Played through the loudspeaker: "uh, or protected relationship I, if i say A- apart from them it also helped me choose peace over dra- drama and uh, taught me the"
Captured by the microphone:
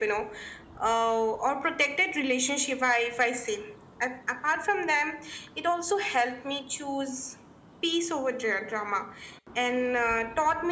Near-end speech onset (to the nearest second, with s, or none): none